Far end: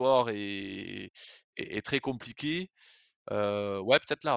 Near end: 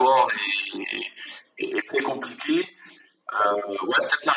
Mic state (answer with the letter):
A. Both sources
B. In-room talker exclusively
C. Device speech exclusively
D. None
C